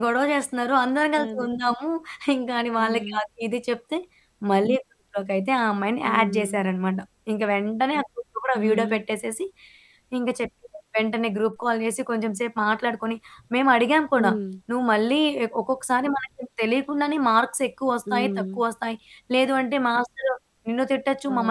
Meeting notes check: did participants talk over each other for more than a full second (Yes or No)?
No